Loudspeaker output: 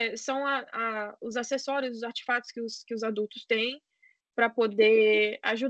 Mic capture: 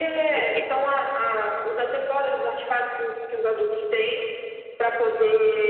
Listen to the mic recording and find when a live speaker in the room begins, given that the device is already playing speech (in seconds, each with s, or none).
0.3 s